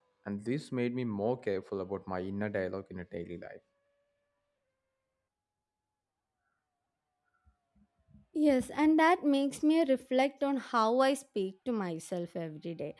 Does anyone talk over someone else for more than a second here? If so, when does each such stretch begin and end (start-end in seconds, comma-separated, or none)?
none